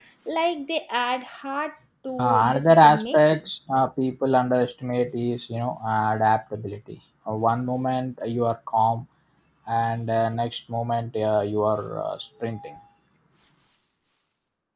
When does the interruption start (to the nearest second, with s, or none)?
2 s